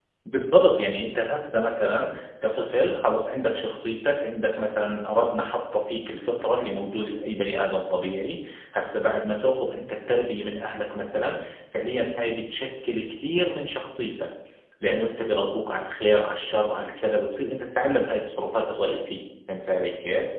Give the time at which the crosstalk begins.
none

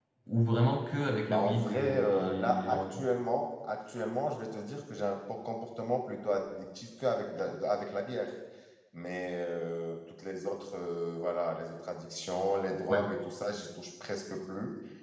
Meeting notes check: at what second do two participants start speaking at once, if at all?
1.3 s

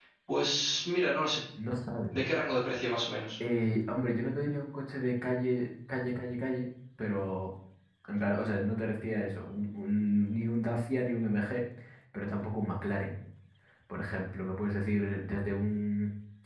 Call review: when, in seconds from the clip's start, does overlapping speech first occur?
none

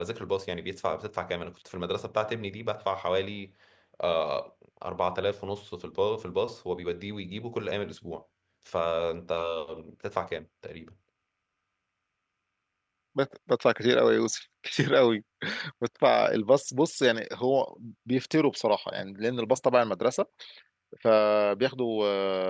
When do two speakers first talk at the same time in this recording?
none

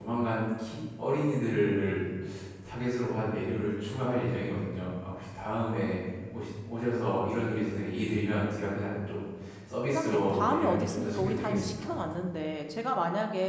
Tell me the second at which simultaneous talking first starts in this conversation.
9.9 s

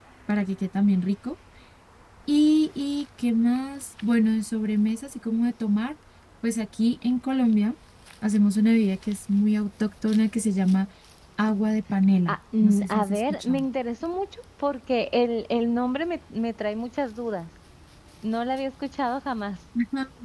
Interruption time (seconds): 12.3 s

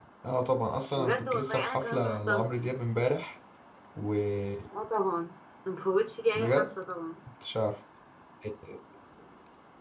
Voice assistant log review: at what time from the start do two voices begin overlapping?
1.0 s

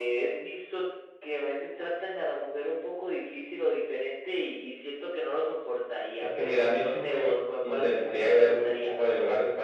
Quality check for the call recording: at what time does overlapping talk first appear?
6.2 s

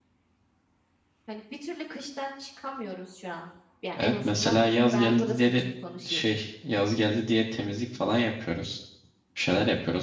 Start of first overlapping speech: 4.0 s

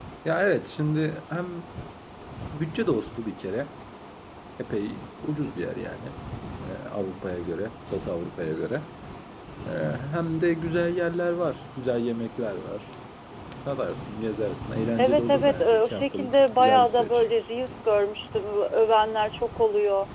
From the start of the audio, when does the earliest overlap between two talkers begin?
15.0 s

